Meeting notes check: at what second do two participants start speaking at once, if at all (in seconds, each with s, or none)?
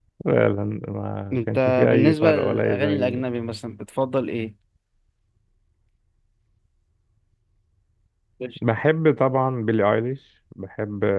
1.3 s